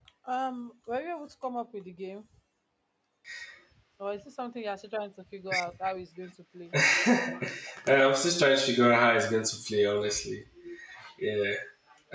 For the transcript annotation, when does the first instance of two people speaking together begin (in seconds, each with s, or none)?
none